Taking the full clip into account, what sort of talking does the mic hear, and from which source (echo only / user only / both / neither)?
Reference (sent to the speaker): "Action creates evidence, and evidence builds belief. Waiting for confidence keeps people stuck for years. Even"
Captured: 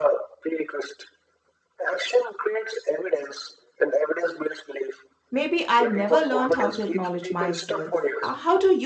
both